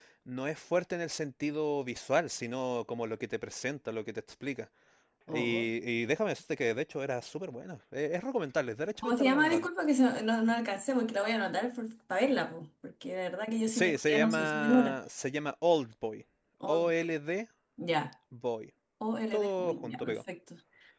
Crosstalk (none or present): present